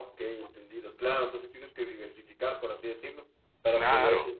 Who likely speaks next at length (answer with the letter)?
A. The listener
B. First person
B